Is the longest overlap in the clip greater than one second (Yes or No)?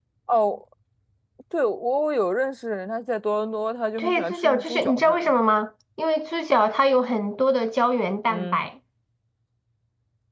Yes